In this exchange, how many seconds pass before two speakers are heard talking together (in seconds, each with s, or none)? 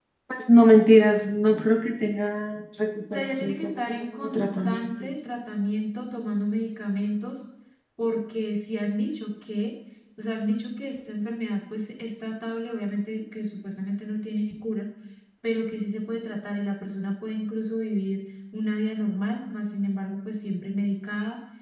3.1 s